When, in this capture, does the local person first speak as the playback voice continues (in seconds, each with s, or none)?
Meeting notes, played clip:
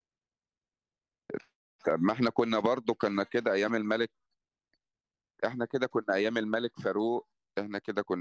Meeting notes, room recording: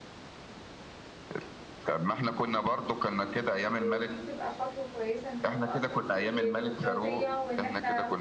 3.8 s